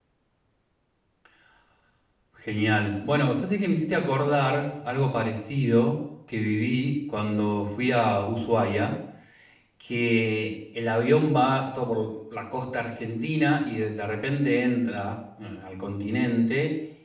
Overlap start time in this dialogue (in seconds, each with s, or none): none